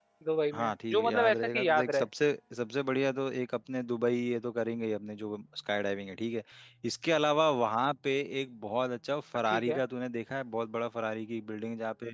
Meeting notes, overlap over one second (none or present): present